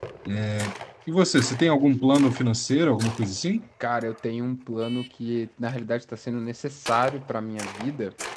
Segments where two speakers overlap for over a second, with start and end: none

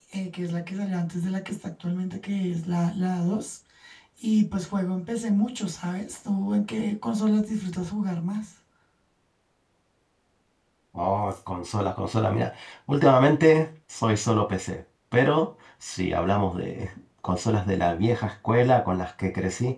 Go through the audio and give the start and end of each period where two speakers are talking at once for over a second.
none

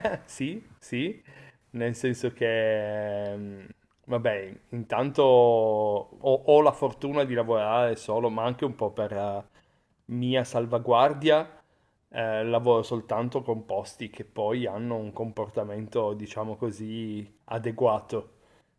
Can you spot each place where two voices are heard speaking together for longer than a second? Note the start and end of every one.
none

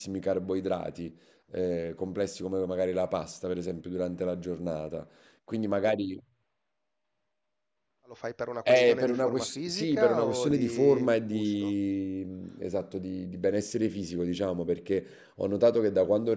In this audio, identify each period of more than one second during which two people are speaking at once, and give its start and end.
8.7-11.7

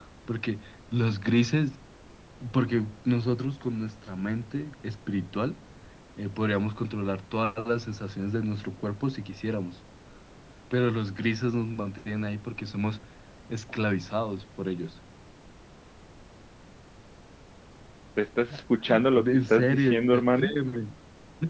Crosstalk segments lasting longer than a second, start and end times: 19.1-20.5

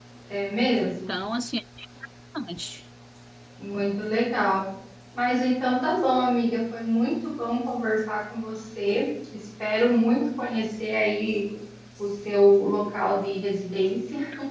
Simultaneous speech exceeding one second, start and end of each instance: none

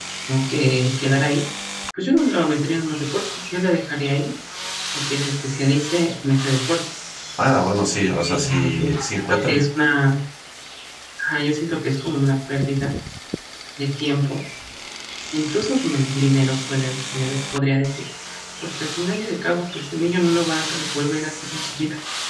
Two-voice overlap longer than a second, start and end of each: 8.3-9.6

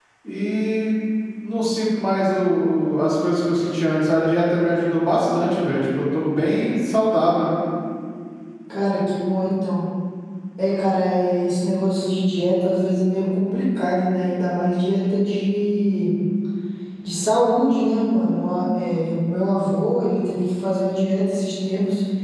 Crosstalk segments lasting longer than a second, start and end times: none

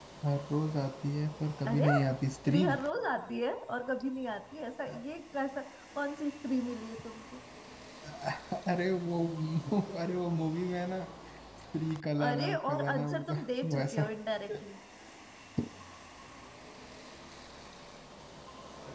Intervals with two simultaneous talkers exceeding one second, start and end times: 12.3-14.1

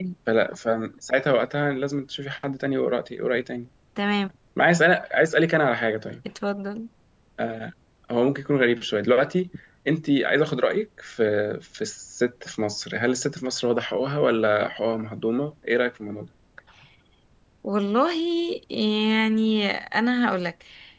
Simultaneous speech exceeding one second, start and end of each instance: none

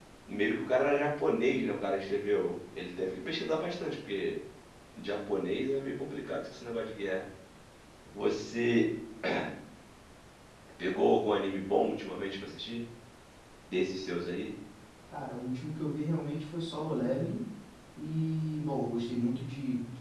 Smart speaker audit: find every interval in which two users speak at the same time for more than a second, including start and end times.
none

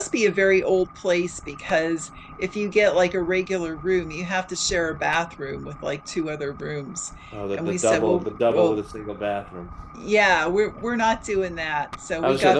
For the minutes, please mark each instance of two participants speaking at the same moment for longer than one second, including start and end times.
7.5-8.8

